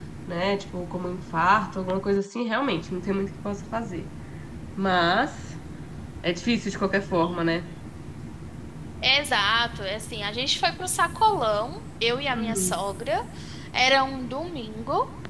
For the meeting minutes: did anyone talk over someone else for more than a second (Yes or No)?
No